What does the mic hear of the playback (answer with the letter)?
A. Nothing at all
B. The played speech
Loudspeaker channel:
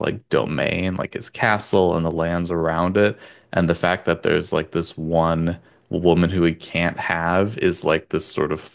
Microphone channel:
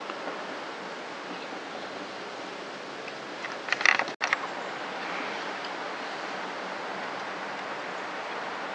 A